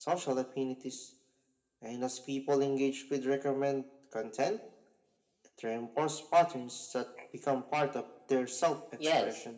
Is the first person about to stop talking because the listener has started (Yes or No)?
Yes